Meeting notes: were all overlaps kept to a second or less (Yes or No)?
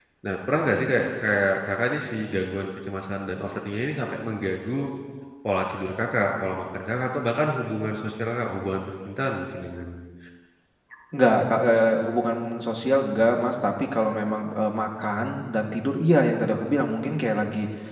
Yes